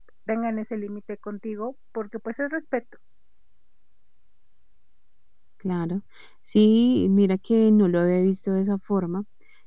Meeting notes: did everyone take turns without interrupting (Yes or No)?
Yes